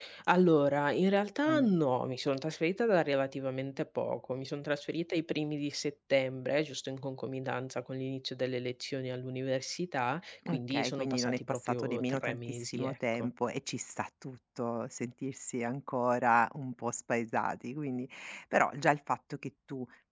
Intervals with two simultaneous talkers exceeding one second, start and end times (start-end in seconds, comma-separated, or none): 10.5-13.3